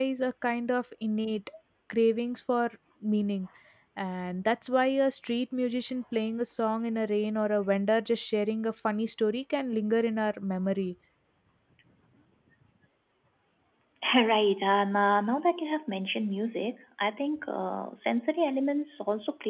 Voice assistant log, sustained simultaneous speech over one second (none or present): none